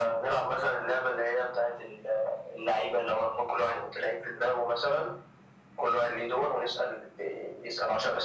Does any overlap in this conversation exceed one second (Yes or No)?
No